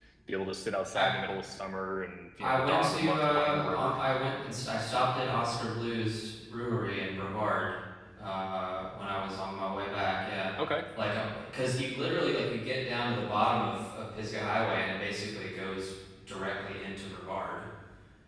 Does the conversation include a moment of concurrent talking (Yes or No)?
Yes